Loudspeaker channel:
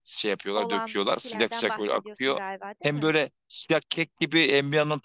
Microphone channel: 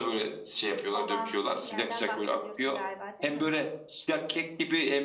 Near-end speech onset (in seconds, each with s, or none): none